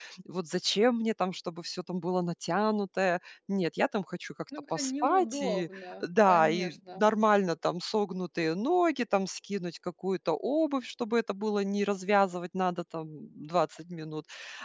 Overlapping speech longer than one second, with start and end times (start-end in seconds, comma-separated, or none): 4.8-7.0